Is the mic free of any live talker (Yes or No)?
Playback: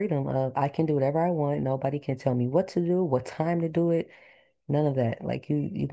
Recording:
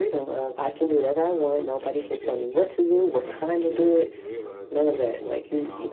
No